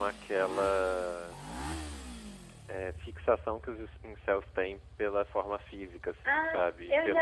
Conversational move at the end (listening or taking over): taking over